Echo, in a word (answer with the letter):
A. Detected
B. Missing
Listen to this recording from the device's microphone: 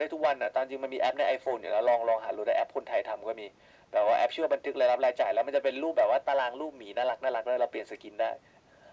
A